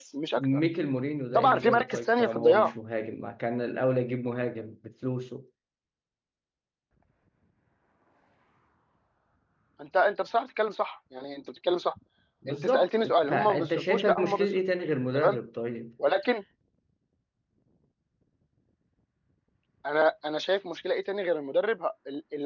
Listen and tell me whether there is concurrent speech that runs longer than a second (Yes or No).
Yes